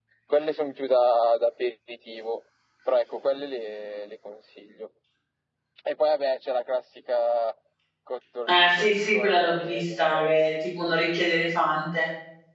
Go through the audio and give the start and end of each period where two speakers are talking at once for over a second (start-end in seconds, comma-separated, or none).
8.5-10.3